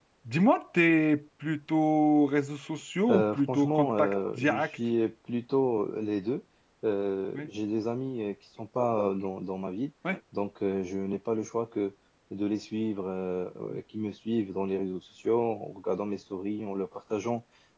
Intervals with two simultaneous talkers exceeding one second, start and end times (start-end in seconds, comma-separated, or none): 3.1-4.8